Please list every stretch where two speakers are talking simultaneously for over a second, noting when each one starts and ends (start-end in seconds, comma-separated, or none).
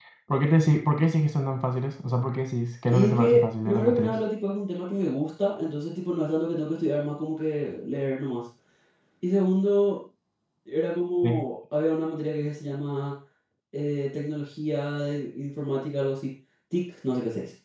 2.9-4.2